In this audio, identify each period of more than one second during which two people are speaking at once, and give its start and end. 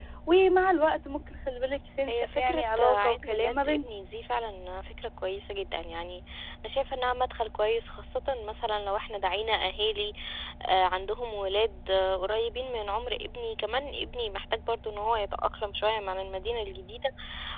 2.1-3.9

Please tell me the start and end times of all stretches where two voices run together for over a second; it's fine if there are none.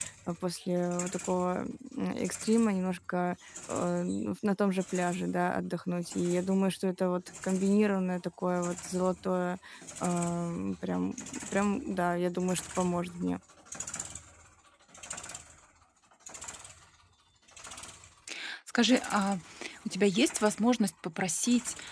none

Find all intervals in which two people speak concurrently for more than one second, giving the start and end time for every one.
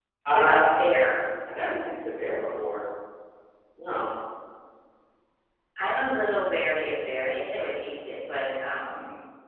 none

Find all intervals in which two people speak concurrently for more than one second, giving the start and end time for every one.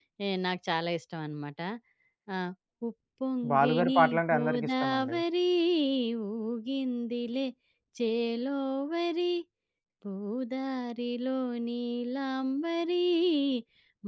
3.5-5.2

